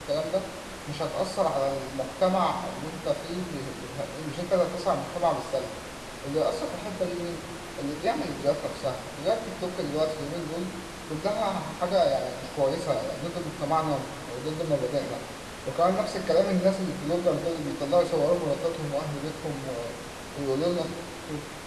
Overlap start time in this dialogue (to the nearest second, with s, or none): none